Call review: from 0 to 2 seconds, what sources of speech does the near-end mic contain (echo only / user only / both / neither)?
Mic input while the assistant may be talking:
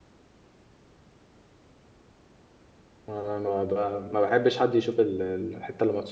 neither